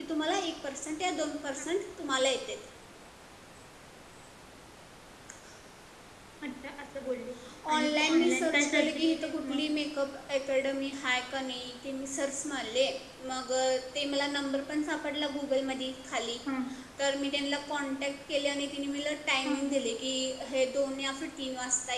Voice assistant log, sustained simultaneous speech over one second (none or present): present